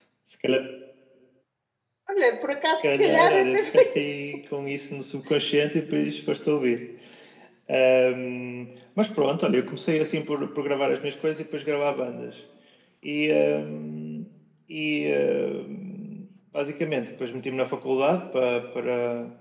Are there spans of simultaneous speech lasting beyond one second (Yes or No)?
Yes